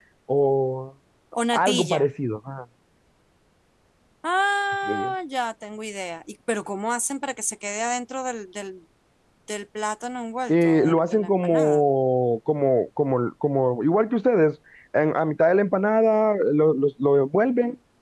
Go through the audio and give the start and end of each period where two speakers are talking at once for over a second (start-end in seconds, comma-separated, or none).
10.5-11.8